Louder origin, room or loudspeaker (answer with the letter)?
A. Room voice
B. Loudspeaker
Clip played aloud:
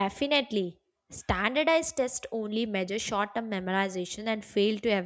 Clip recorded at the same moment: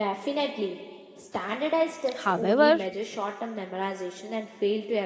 A